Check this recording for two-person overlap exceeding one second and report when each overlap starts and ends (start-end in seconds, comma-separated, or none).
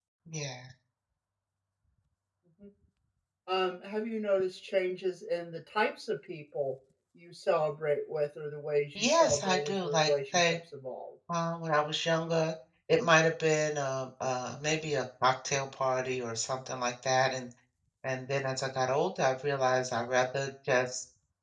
9.0-10.6